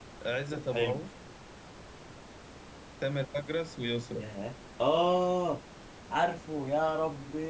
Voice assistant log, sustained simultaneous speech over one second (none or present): none